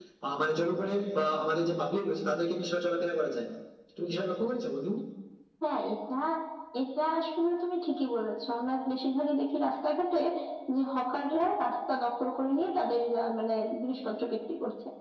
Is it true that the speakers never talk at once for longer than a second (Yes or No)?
Yes